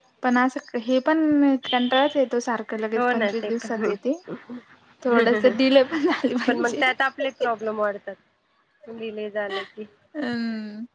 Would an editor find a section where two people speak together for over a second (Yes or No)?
Yes